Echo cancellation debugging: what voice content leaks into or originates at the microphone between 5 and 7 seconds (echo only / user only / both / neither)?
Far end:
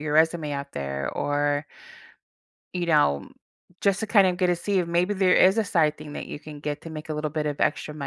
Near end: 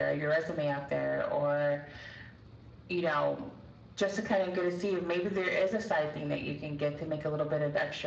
echo only